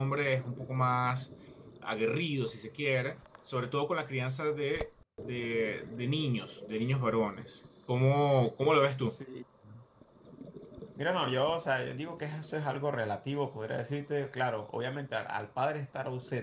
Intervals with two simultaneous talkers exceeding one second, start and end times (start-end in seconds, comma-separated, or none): none